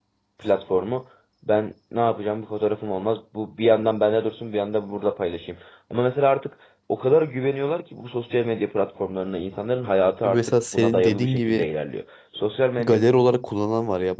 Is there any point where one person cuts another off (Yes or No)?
Yes